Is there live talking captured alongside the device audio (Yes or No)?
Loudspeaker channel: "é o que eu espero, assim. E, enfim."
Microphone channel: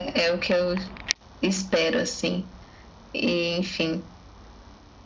No